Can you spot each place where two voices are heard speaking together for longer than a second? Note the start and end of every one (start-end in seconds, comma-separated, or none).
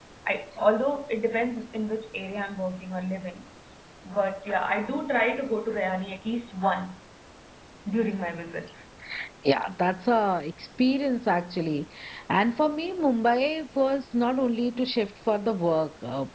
none